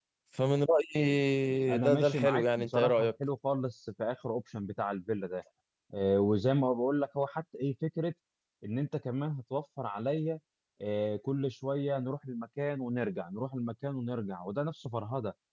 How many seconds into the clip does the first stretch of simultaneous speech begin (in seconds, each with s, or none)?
1.7 s